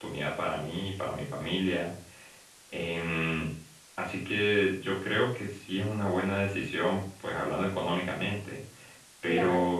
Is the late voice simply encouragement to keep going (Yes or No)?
No